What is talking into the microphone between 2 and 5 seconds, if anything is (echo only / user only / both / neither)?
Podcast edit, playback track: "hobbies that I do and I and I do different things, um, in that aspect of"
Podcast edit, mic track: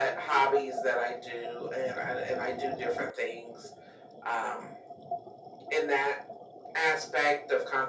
echo only